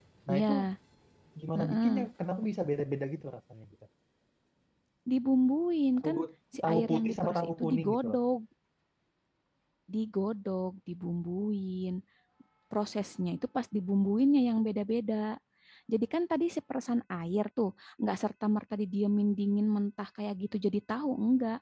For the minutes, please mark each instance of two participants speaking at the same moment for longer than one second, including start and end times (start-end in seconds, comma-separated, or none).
6.6-8.2